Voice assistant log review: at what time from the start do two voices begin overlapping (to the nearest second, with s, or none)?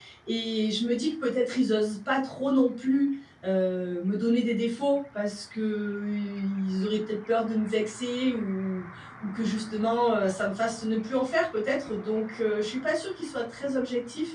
none